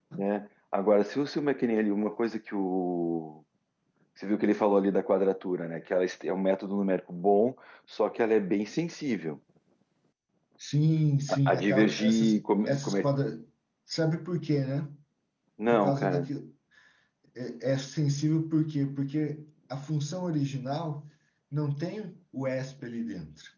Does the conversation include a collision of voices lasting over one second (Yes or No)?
Yes